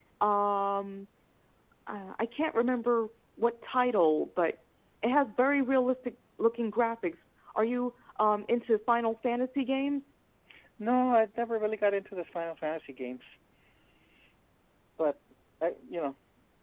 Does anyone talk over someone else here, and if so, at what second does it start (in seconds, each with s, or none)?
none